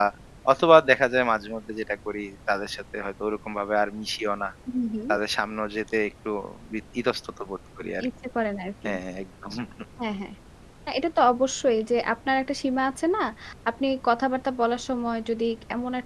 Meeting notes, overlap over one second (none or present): none